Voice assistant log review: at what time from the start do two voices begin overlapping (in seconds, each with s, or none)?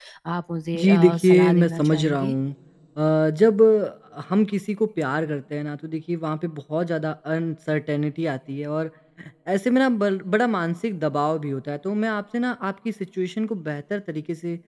0.8 s